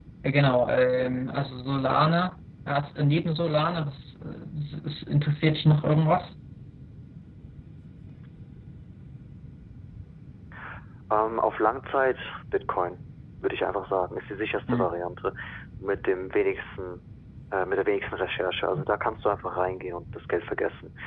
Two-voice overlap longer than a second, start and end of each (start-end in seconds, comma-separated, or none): none